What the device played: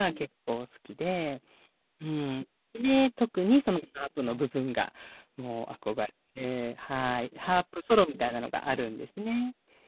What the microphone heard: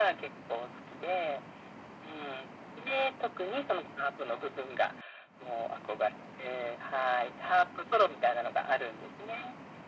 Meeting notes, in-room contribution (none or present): none